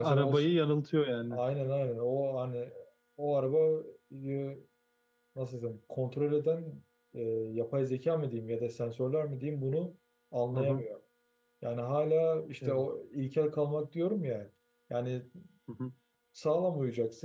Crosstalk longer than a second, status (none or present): none